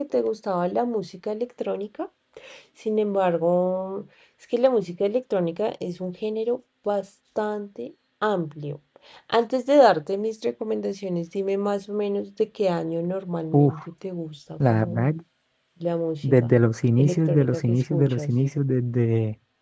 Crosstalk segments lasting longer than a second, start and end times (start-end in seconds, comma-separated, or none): 17.0-18.3